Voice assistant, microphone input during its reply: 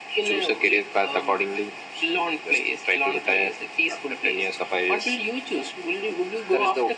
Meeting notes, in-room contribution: none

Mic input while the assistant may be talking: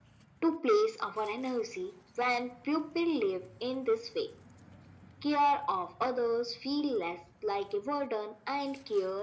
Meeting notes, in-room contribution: none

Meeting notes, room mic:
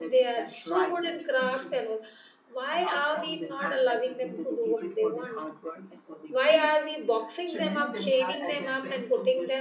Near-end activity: present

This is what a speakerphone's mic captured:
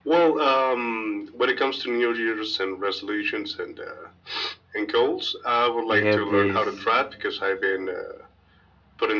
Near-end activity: present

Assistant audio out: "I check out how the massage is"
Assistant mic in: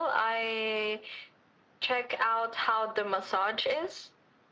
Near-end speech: none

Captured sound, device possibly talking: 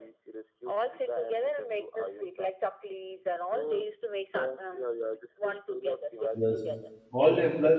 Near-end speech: present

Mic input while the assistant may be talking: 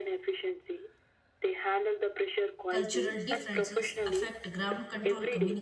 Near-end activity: present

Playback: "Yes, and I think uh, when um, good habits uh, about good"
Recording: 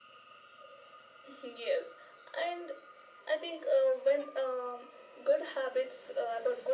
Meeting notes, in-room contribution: none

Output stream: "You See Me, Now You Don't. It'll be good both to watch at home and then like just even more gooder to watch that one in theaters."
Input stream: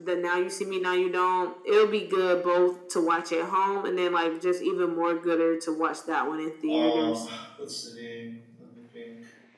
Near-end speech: present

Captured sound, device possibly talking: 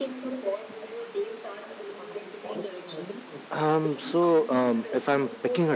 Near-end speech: present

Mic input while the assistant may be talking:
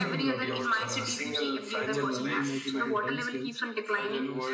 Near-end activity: present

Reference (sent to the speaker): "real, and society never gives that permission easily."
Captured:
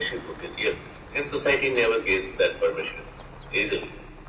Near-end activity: none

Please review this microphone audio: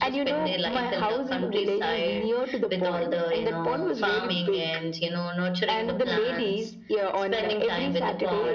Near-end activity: none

